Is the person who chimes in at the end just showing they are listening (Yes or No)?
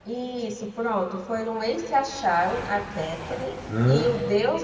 Yes